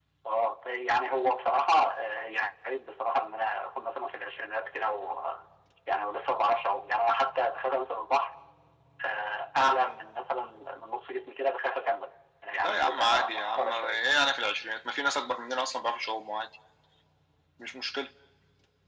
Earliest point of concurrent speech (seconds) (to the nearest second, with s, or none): 13 s